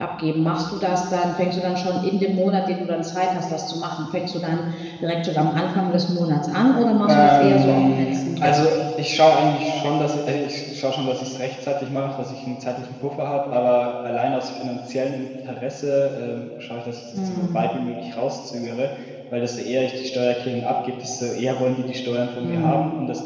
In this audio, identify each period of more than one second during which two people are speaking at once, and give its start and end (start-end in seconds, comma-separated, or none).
7.1-8.7